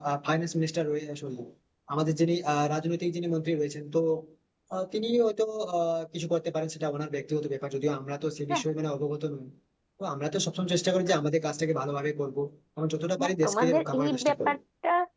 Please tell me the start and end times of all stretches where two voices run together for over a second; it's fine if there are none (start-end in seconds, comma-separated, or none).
13.2-14.6